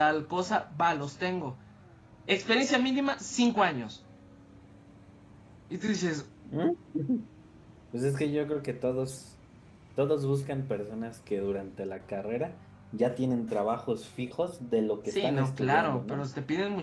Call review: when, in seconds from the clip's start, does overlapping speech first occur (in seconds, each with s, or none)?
15.1 s